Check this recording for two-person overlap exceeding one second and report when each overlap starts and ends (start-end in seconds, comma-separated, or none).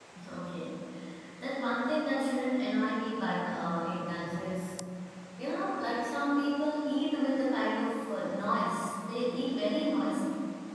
none